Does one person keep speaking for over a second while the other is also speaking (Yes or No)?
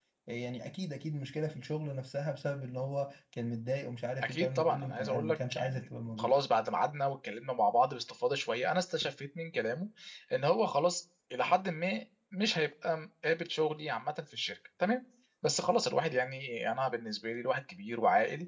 Yes